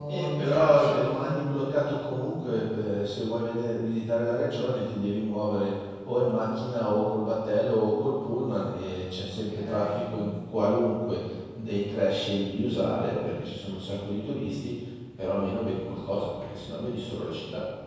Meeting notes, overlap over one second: present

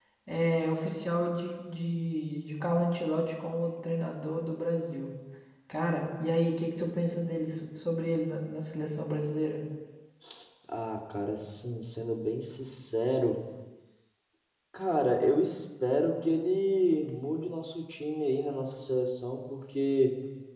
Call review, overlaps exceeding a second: none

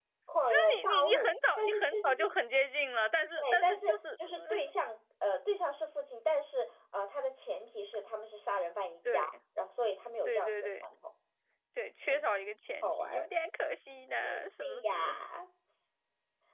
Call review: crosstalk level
present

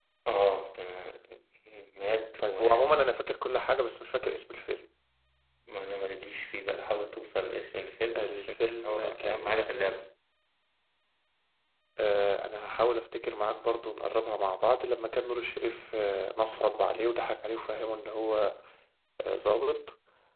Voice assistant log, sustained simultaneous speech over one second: present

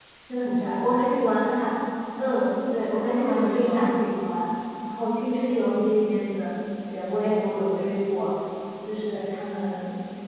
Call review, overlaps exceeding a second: present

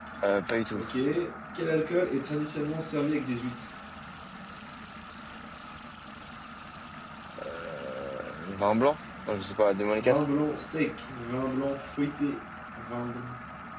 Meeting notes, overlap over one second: none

